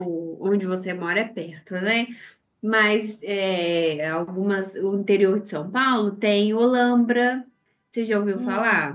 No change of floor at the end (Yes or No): No